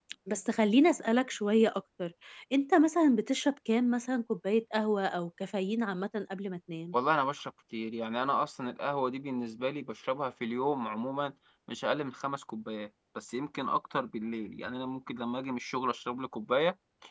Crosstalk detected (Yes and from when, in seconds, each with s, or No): No